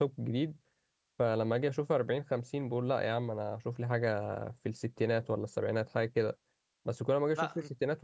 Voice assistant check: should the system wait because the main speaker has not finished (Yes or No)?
Yes